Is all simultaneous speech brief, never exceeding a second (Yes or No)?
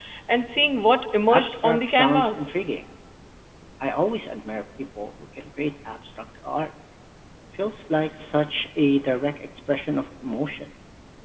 No